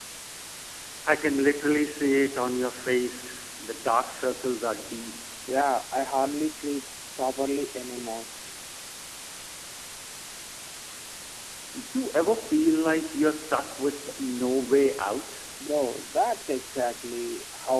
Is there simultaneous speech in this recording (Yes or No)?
No